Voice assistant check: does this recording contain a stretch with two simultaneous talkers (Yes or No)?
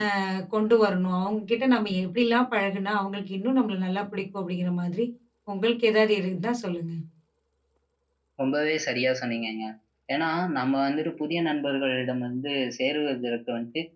No